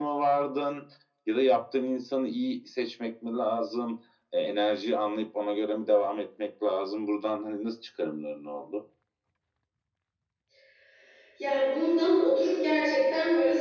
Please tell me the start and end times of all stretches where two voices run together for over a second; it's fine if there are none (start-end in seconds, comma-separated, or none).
none